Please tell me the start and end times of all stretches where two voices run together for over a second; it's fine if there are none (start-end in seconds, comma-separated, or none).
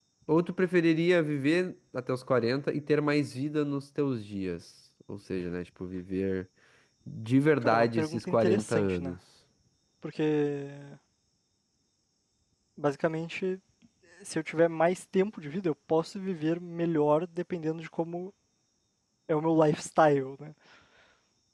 7.6-9.2